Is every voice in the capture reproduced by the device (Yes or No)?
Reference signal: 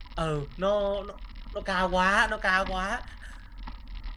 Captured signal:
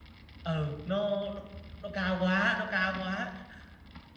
Yes